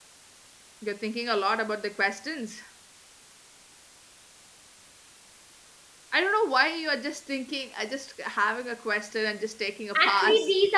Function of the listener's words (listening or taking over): taking over